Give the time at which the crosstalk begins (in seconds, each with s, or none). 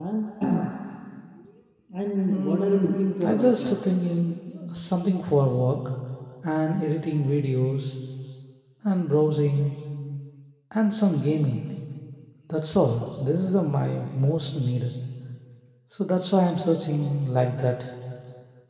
2.3 s